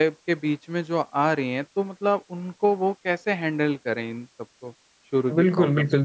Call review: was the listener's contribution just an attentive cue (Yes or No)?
No